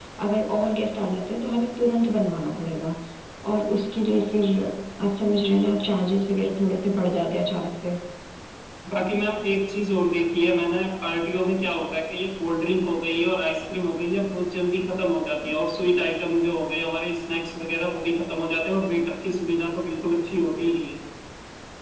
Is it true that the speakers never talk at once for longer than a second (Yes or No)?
Yes